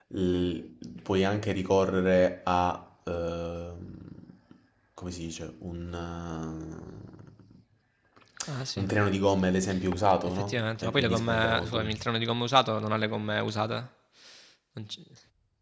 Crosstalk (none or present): present